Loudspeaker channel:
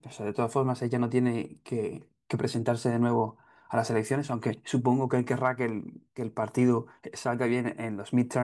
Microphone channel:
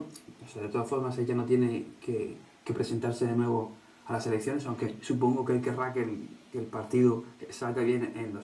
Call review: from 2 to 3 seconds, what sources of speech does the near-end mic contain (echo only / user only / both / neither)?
echo only